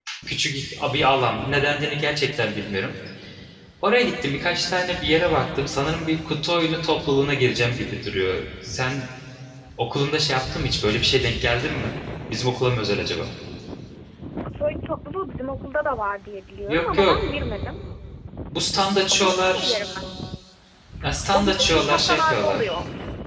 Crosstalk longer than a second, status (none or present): present